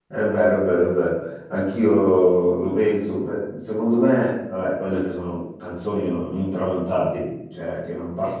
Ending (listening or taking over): listening